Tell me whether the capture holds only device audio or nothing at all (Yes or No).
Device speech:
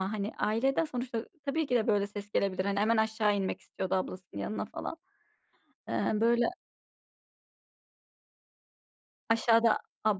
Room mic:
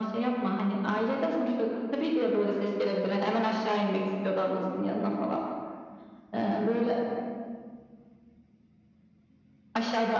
Yes